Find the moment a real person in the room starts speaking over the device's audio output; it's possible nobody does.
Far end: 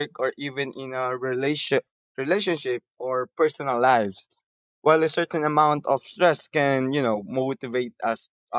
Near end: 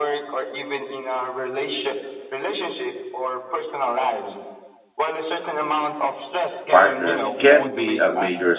7 s

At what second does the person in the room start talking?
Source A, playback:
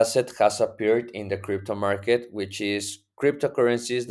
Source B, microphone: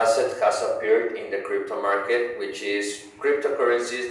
none

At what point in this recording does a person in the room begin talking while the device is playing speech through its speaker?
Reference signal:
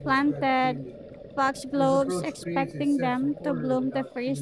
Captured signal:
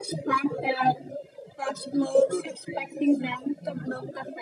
none

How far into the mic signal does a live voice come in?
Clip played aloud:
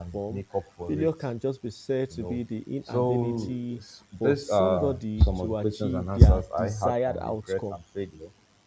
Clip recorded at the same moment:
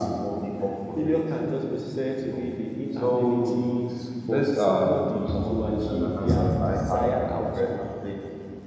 none

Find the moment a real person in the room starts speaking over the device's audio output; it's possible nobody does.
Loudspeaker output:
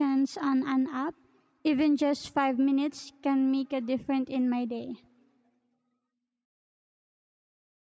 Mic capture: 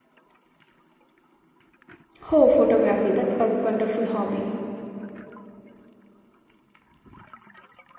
2 s

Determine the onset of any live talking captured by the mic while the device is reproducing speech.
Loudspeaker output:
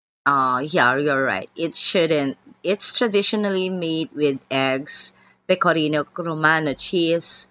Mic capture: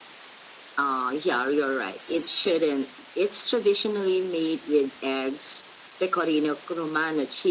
none

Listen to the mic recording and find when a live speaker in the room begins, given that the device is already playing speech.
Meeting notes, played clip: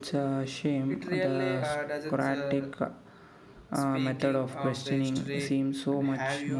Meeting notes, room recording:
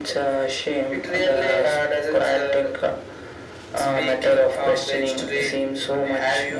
none

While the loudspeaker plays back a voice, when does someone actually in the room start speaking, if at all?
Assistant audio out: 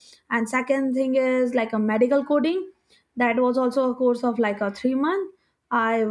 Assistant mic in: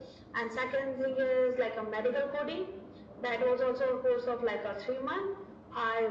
none

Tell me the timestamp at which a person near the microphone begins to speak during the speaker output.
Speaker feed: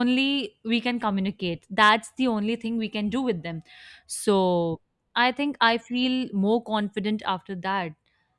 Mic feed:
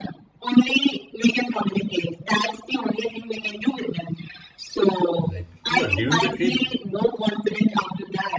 5 s

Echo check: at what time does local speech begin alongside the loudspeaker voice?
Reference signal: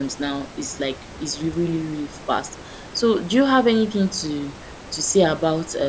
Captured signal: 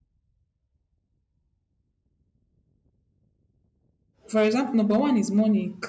4 s

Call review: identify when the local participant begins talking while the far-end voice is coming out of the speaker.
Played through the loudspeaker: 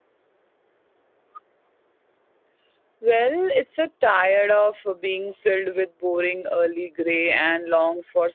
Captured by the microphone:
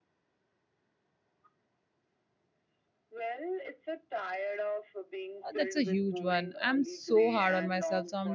5 s

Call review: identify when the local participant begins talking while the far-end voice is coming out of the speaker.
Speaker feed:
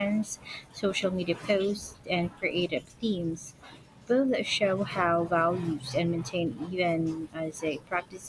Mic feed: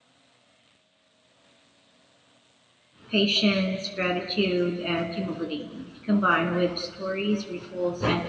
3 s

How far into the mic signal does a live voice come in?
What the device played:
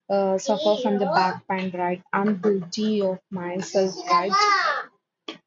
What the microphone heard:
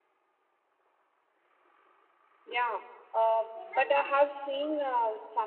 2 s

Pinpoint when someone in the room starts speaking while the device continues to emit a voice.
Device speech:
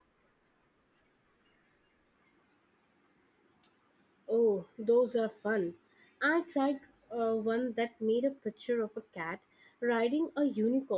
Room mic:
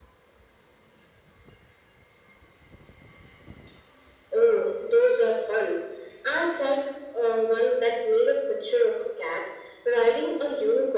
none

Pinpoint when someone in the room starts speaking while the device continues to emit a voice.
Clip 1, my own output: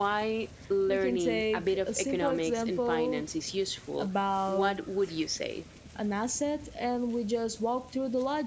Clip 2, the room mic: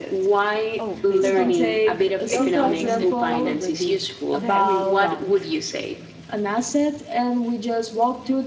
1 s

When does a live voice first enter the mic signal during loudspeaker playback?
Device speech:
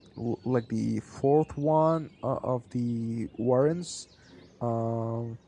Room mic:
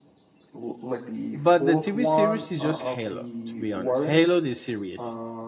1 s

